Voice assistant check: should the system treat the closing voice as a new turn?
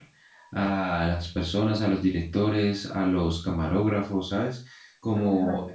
No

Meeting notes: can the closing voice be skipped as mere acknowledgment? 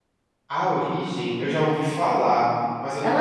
No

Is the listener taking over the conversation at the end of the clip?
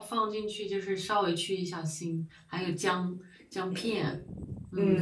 Yes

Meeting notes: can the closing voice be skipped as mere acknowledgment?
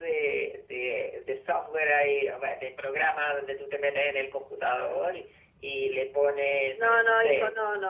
No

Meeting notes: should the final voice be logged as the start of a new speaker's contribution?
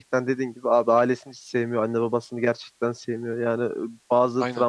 No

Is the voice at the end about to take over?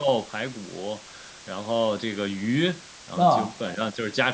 No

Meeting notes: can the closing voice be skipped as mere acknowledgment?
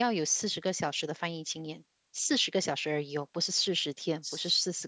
No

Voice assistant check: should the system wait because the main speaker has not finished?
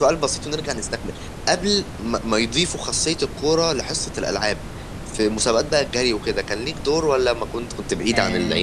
No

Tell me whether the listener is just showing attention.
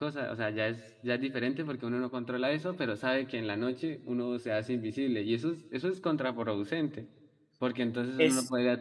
Yes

